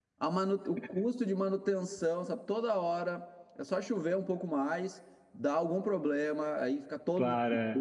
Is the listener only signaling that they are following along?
Yes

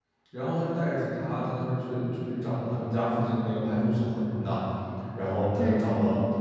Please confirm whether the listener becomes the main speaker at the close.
No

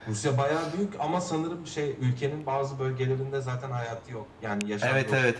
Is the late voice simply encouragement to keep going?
No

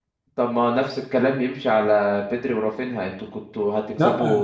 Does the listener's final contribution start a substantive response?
No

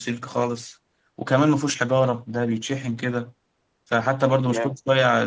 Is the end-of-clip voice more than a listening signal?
No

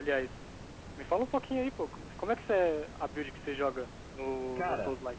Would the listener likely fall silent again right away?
No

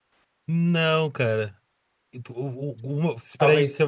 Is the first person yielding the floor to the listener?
No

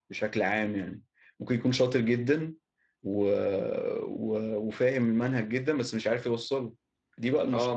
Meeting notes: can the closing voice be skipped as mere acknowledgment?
No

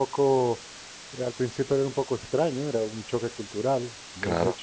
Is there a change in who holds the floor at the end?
No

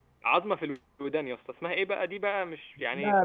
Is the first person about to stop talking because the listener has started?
Yes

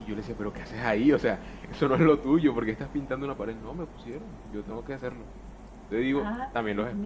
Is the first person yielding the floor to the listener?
Yes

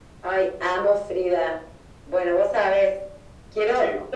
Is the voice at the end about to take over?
No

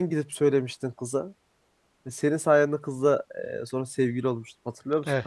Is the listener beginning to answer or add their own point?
Yes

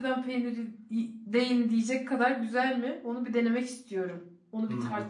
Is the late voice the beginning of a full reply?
Yes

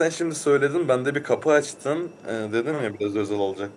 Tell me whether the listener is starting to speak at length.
No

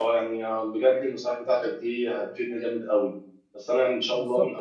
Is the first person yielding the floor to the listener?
No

